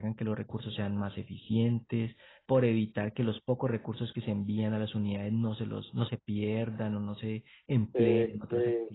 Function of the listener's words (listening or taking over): taking over